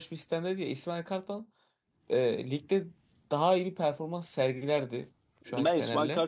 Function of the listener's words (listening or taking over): taking over